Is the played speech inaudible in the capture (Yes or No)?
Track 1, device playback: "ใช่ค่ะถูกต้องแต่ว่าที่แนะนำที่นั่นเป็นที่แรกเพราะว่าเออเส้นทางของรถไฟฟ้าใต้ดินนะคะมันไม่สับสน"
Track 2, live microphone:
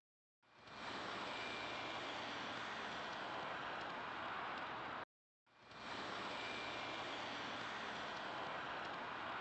Yes